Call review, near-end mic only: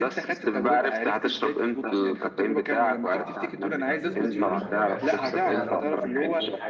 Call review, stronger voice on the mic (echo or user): echo